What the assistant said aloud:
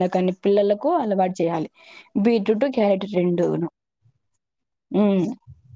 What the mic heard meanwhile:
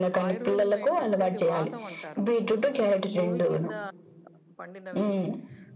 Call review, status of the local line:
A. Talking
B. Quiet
A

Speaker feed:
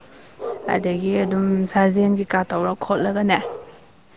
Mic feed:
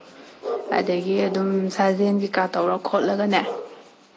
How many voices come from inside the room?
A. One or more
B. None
B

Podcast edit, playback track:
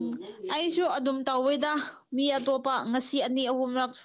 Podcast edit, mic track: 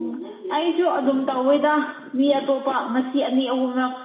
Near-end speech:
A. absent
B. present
A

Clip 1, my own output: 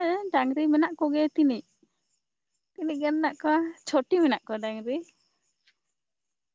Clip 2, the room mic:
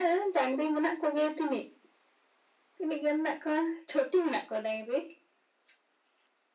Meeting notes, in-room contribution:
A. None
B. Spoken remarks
A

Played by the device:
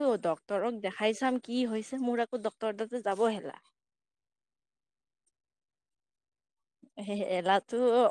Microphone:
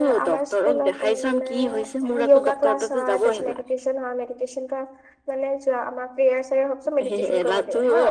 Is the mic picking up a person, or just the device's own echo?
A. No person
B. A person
B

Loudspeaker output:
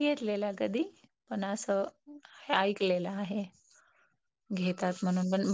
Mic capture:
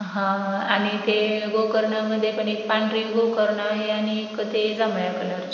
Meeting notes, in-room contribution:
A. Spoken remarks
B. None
A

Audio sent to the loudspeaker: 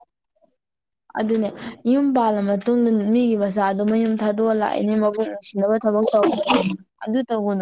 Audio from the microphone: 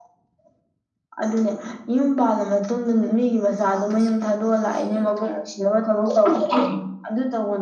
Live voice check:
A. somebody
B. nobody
A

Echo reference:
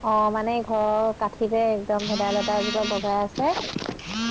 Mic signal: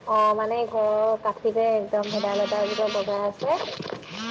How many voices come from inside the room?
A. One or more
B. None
B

